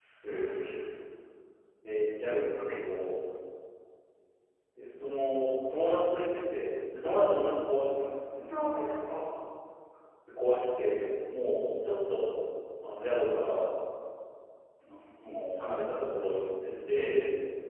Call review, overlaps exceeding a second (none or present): none